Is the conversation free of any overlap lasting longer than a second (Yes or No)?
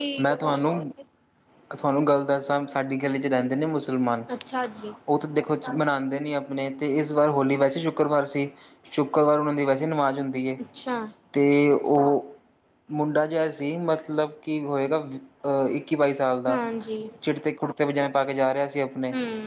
Yes